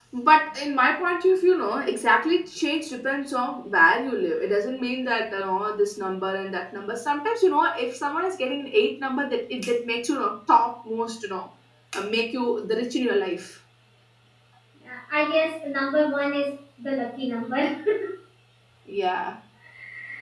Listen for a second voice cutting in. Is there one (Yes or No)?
No